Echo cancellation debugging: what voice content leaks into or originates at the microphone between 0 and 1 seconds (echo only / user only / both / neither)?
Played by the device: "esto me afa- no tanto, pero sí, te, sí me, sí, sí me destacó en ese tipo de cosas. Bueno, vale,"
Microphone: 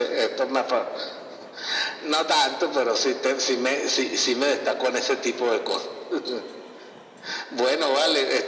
echo only